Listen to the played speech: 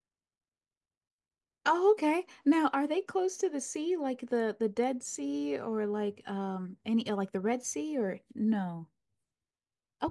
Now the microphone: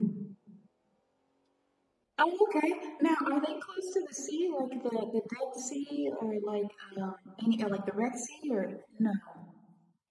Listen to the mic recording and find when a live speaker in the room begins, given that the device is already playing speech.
none

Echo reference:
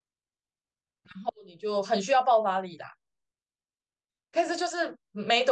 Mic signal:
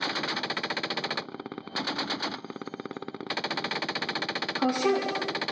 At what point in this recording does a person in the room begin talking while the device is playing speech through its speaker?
4.5 s

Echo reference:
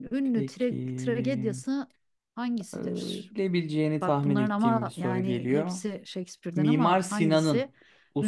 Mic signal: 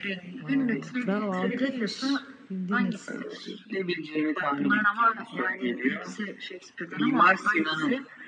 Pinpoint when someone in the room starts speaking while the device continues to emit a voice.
0.4 s

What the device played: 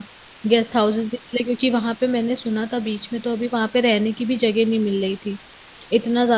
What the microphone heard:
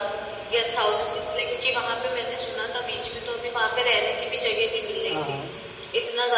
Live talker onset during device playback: 5.1 s

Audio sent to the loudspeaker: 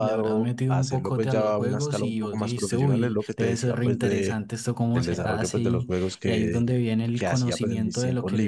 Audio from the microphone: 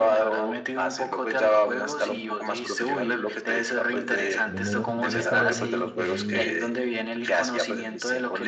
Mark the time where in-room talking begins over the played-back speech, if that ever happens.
4.5 s

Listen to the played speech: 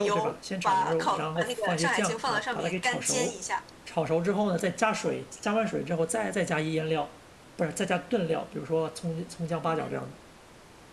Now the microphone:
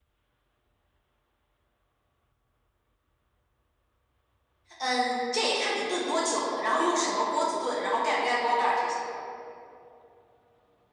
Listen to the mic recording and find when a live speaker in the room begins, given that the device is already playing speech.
4.8 s

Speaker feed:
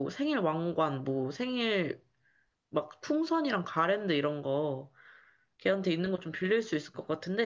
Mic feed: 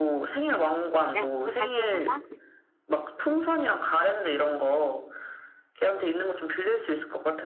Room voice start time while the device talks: 1.1 s

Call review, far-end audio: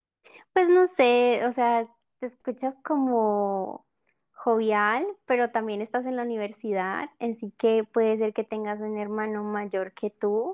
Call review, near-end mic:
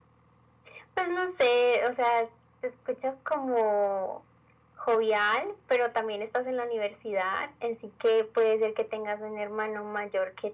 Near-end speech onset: none

